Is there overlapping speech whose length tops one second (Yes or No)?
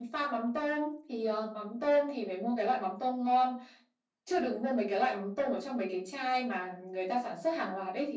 No